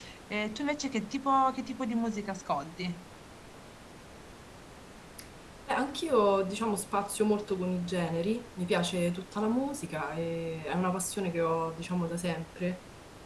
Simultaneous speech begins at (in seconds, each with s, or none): none